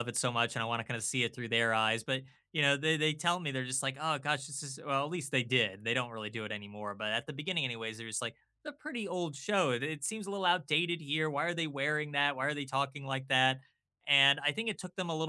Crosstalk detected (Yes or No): No